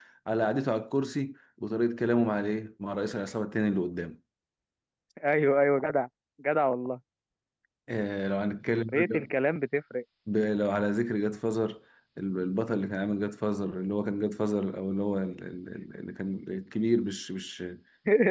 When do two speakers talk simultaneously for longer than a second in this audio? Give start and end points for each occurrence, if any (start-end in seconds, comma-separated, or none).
none